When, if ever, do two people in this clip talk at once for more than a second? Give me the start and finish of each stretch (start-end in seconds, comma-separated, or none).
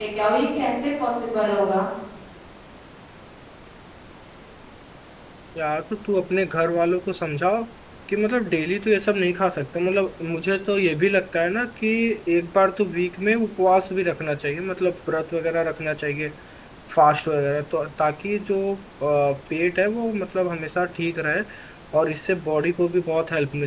none